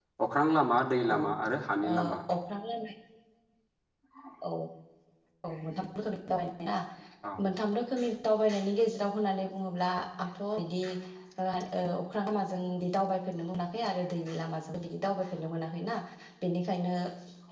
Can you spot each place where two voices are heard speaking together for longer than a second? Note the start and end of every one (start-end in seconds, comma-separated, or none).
none